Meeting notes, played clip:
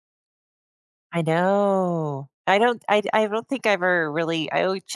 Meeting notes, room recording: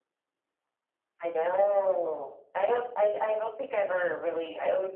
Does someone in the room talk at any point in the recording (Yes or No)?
No